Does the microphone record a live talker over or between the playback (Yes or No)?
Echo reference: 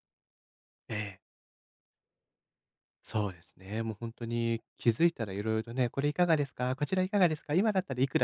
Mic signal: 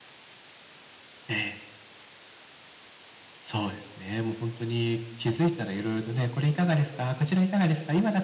No